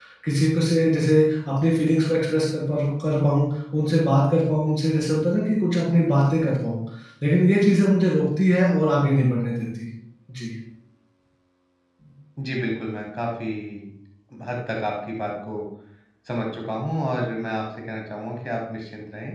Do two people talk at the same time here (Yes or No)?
No